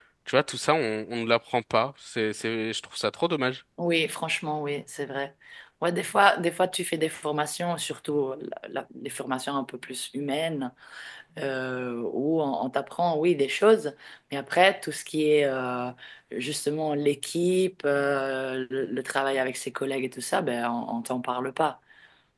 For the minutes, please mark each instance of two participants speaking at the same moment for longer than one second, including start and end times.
none

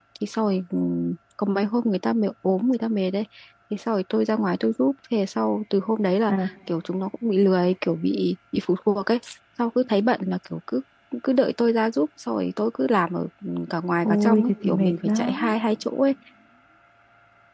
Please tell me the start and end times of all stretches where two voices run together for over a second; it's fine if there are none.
14.0-15.5

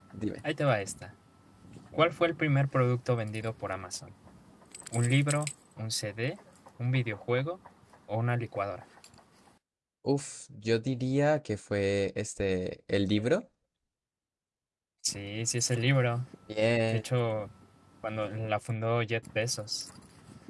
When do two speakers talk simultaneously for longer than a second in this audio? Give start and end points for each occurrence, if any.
none

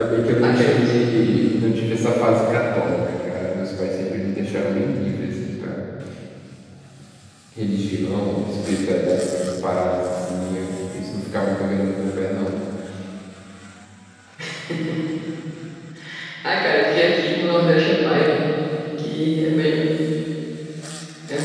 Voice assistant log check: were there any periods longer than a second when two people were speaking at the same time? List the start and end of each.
none

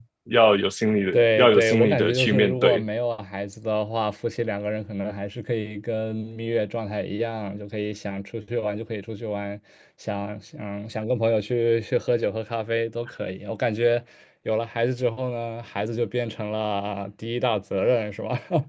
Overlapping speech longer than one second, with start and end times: 1.1-2.8

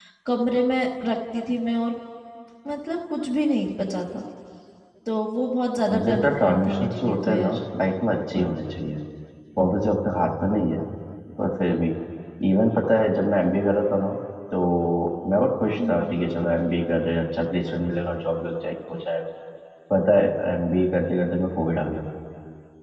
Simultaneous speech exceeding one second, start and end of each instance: 5.9-7.6

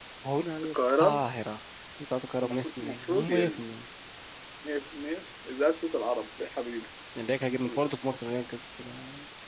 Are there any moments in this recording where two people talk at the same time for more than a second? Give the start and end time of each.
2.4-3.6

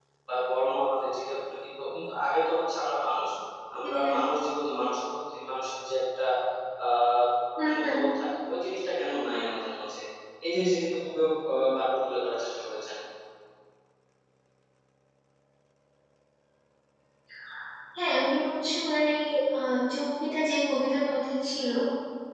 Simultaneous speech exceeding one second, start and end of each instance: none

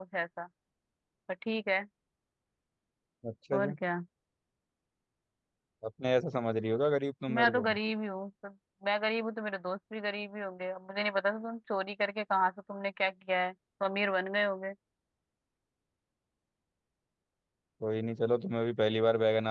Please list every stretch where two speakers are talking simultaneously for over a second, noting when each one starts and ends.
none

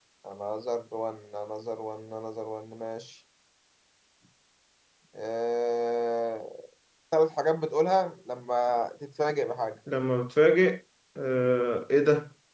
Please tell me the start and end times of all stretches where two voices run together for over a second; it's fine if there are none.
none

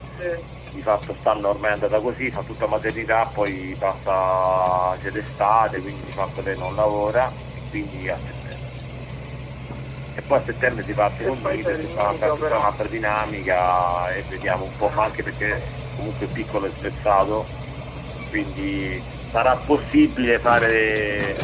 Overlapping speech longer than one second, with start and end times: 11.4-12.7

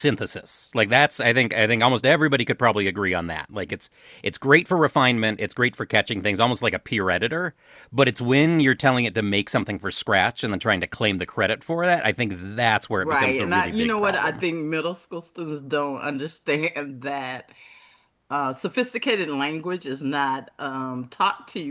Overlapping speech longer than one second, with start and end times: 13.0-14.4

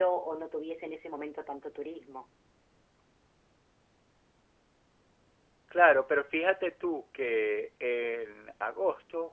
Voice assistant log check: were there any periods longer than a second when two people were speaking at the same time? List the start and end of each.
none

